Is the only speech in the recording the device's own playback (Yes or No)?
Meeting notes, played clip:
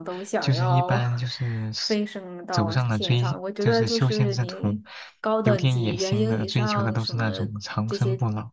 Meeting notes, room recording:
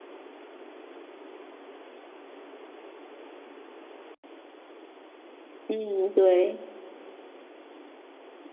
No